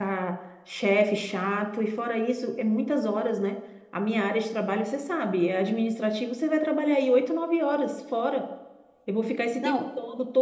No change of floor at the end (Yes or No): Yes